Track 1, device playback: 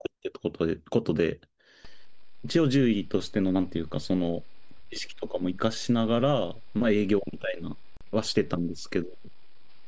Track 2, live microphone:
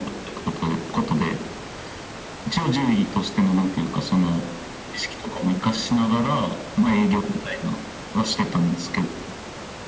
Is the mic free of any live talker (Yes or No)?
Yes